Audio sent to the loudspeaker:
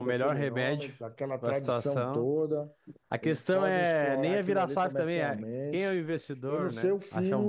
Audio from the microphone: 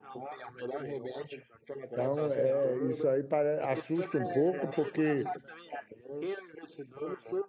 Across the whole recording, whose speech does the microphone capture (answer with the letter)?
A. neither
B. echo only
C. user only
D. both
D